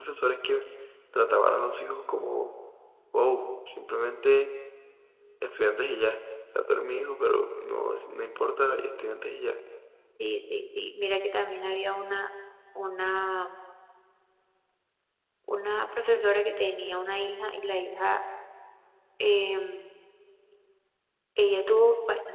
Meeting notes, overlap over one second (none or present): none